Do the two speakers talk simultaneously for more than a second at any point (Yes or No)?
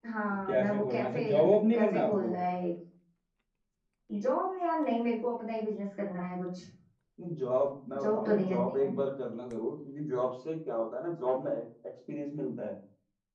Yes